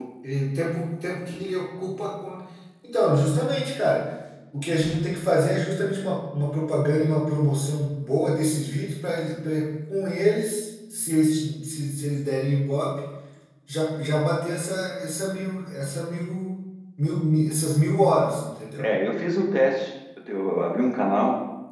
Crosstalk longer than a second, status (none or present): none